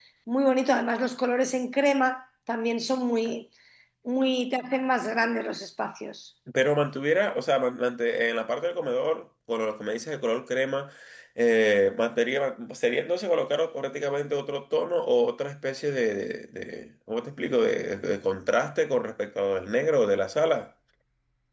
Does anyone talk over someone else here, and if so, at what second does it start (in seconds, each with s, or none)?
none